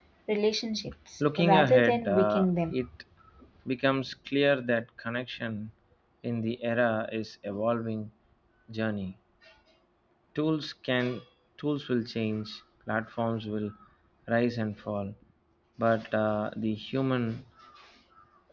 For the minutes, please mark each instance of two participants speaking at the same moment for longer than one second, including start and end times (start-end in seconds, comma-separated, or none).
1.2-2.8